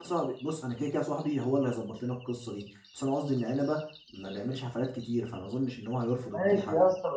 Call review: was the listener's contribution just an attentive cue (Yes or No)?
No